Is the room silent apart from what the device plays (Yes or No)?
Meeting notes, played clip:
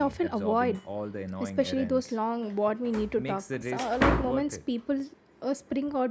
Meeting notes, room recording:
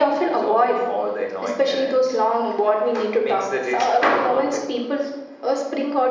Yes